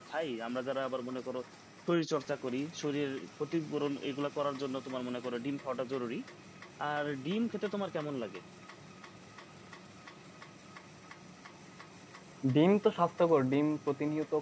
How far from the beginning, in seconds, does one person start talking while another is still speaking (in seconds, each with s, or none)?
none